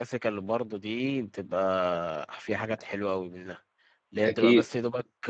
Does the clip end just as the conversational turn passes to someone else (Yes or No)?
No